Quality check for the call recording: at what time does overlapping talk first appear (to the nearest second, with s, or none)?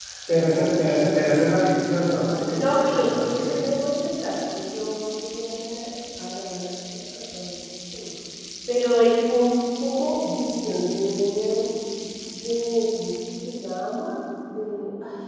2 s